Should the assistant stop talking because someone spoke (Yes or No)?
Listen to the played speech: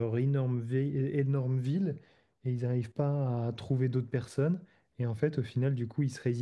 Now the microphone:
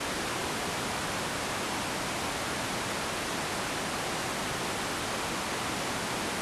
No